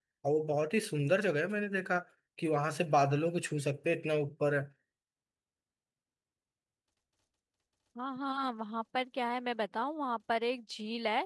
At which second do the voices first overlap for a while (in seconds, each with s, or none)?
none